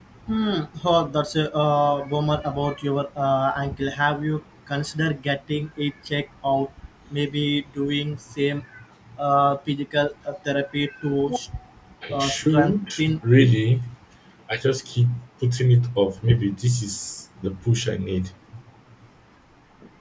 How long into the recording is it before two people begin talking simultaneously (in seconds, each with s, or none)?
12.1 s